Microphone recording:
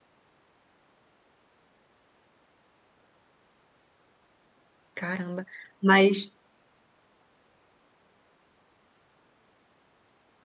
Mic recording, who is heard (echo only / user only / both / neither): user only